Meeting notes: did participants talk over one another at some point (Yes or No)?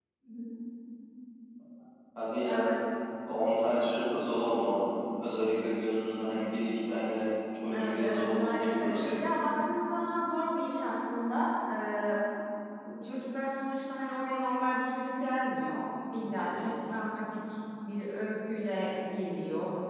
Yes